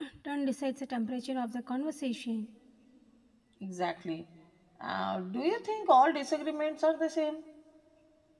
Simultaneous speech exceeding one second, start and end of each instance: none

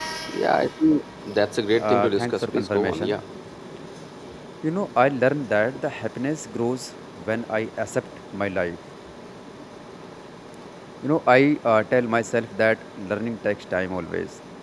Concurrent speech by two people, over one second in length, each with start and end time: 1.7-3.2

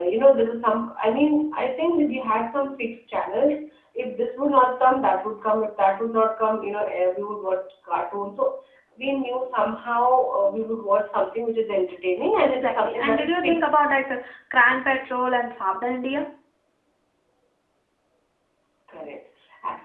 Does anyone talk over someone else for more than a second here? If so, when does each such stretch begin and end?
12.4-13.7

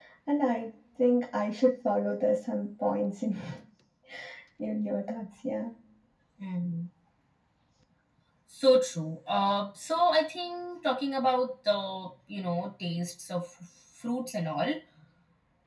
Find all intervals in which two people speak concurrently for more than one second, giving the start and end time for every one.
none

